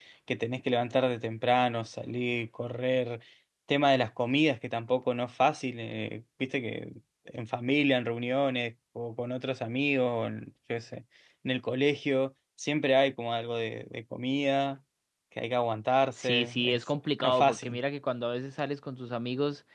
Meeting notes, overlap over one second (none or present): present